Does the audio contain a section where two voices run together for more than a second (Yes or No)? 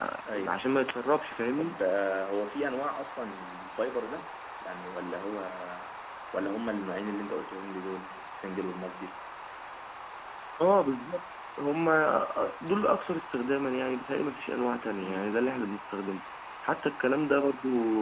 No